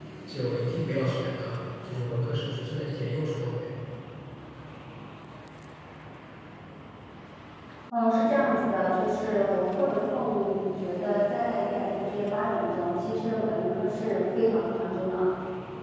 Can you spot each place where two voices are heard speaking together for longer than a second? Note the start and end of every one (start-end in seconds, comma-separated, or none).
none